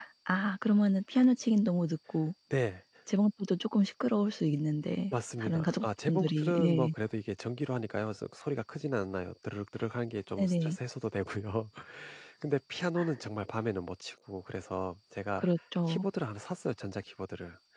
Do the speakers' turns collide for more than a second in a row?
Yes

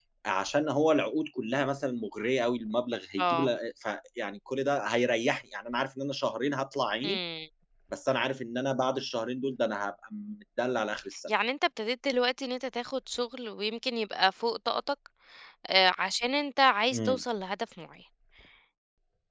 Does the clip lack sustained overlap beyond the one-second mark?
Yes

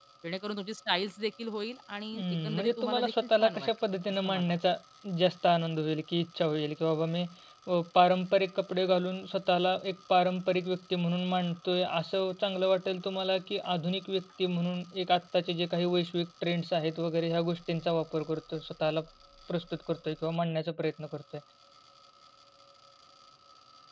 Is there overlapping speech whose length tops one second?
Yes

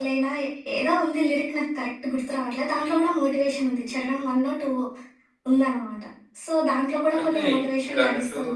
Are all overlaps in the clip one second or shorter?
No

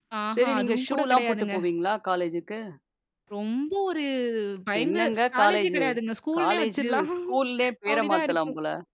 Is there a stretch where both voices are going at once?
Yes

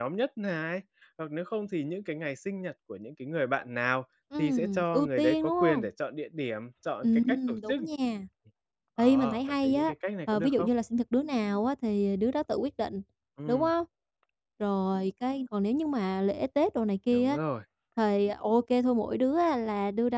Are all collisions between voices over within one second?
No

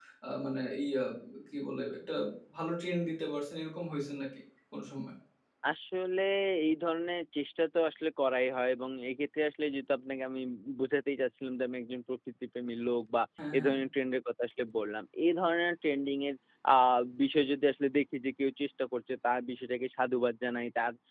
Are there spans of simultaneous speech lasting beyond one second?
No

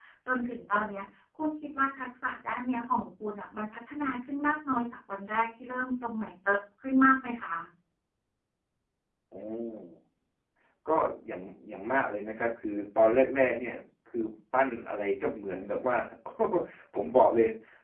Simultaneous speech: No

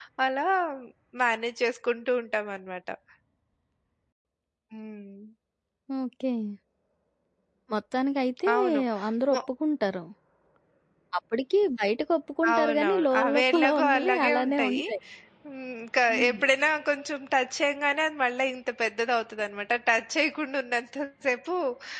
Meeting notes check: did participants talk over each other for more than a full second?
Yes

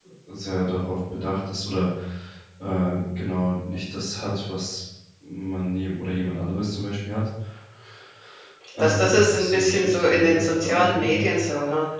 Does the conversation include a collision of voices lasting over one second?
Yes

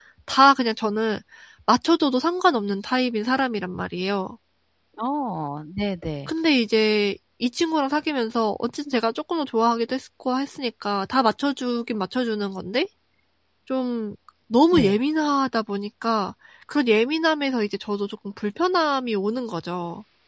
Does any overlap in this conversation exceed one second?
No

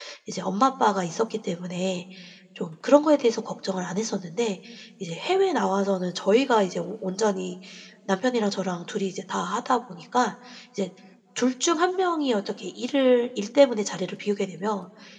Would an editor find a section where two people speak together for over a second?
No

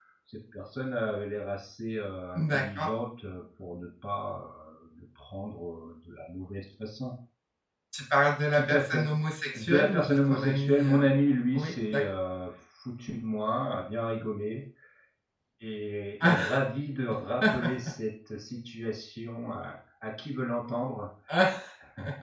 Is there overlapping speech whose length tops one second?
Yes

